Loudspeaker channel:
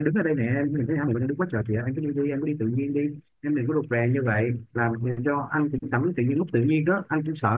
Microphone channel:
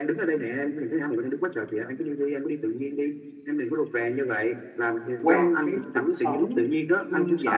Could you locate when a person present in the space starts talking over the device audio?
5.2 s

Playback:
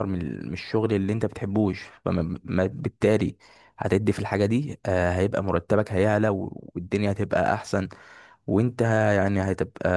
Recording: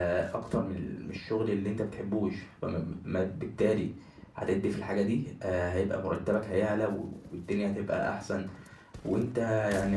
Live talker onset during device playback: none

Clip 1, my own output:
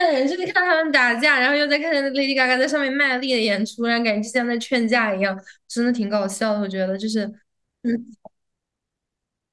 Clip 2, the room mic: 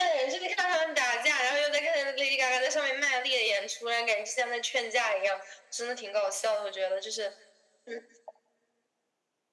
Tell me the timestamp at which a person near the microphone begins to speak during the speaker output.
none

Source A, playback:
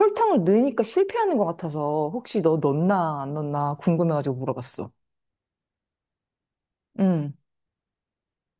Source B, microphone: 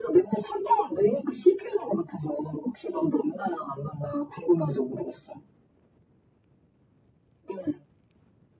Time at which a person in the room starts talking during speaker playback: none

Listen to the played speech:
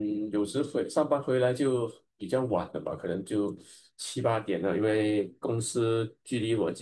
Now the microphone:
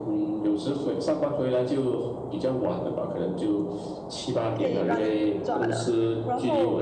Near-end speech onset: 4.5 s

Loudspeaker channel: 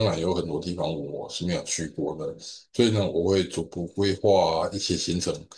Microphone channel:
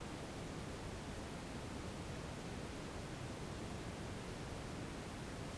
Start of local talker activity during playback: none

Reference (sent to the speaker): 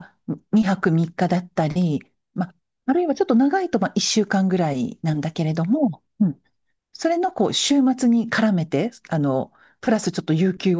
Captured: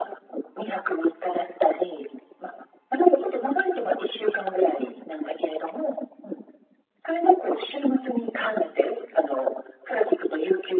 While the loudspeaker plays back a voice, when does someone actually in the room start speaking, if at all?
none

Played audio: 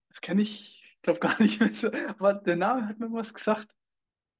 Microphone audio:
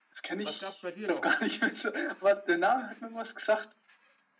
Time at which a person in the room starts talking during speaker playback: 0.4 s

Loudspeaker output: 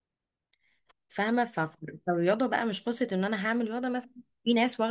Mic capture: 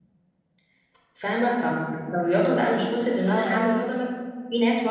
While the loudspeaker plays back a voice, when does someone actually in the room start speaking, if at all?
3.2 s

